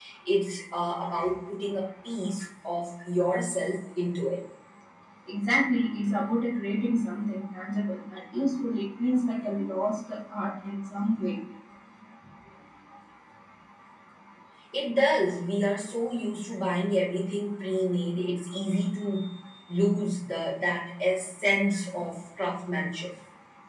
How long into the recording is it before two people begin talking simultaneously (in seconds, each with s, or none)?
none